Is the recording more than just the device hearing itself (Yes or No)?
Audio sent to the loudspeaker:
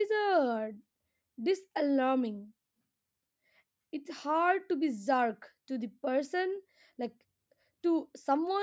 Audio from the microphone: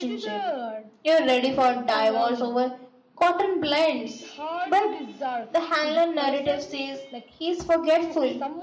Yes